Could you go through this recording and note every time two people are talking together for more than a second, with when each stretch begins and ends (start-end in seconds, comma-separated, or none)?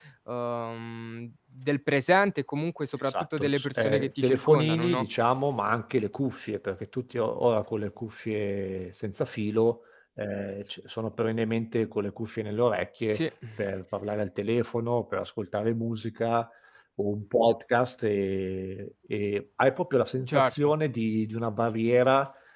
3.1-5.0